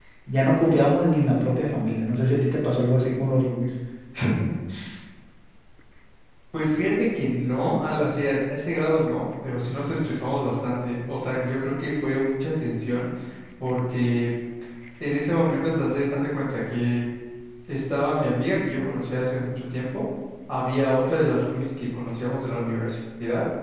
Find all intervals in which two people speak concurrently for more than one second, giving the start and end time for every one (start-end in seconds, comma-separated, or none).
none